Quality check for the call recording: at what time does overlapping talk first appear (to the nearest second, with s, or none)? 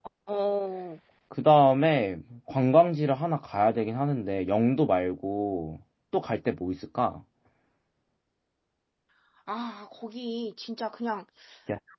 none